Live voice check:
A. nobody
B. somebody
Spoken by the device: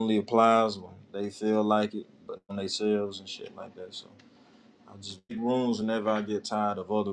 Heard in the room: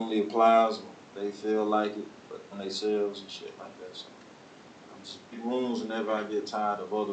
A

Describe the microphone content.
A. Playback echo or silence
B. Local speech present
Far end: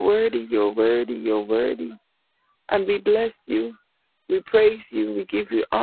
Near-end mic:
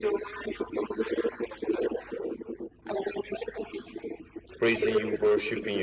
B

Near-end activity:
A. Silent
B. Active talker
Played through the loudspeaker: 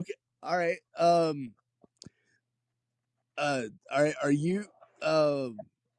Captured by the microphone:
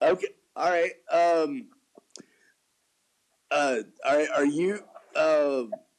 A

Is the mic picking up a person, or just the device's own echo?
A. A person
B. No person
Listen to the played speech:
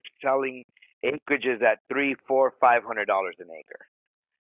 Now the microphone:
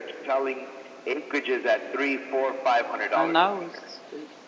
A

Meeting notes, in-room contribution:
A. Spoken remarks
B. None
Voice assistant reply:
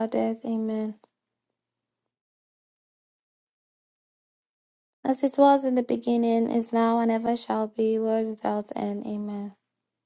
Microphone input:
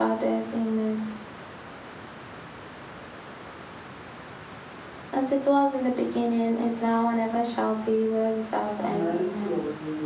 A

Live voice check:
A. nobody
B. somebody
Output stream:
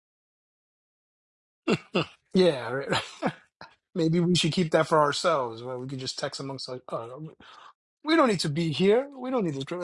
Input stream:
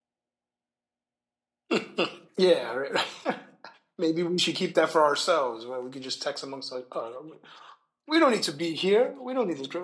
A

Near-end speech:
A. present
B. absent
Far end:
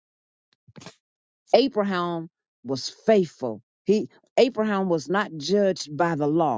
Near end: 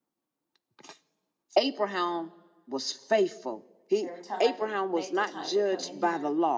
A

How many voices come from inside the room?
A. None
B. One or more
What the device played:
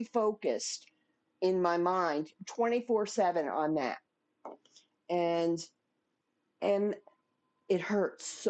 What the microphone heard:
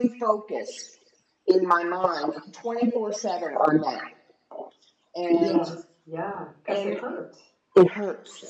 B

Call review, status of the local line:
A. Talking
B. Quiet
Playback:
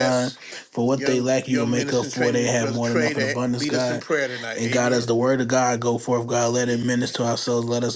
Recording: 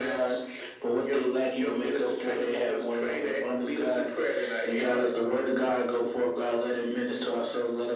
B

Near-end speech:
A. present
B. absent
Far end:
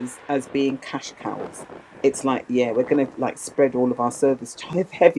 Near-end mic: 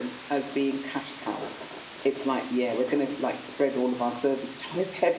B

